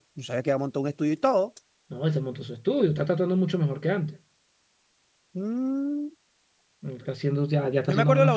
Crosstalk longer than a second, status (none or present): none